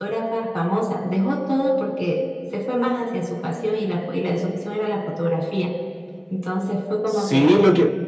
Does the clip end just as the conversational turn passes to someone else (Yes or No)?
Yes